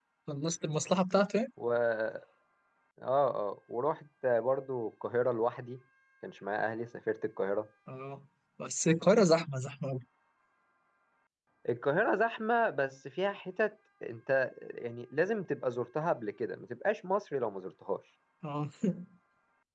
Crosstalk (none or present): none